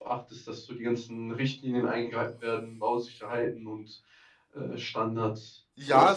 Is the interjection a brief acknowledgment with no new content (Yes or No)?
No